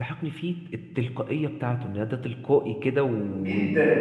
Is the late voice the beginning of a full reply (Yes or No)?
No